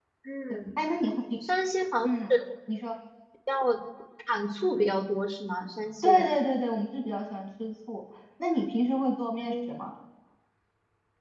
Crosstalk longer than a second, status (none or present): none